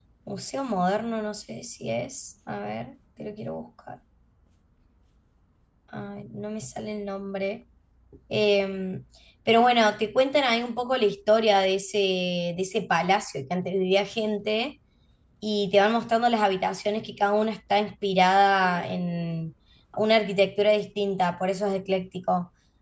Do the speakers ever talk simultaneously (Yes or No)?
No